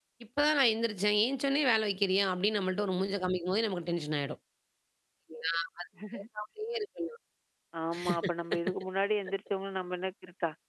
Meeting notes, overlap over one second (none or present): none